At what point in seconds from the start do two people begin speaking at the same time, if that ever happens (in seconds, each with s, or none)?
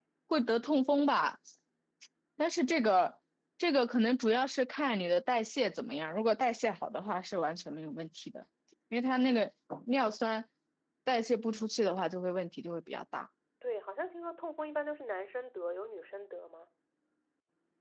none